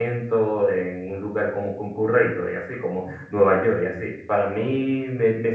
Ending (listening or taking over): listening